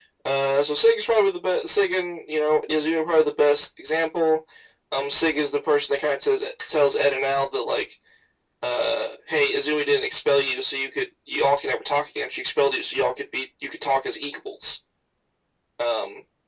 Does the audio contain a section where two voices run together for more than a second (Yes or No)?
No